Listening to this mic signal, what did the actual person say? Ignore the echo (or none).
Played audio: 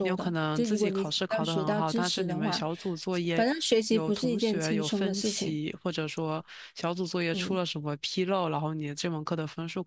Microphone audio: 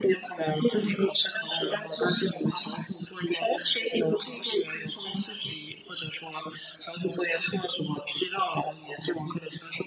none